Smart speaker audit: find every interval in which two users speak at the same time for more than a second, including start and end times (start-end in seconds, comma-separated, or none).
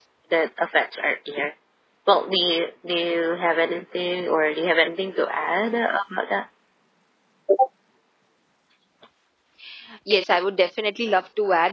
none